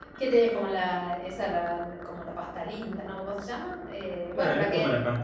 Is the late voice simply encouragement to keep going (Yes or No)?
No